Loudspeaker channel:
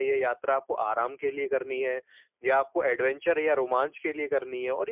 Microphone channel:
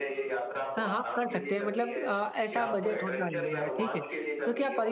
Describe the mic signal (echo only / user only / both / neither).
both